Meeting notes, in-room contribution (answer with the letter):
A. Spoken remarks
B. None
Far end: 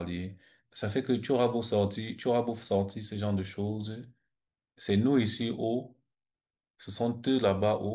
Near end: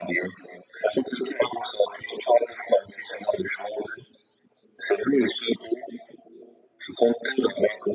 B